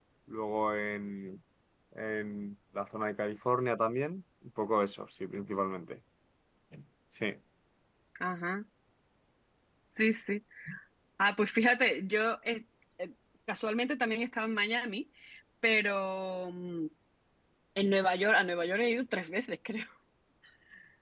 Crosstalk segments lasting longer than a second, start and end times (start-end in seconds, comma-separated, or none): none